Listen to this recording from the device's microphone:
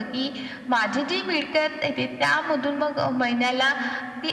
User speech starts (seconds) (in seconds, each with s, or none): none